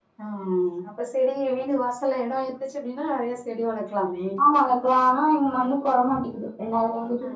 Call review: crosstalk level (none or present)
none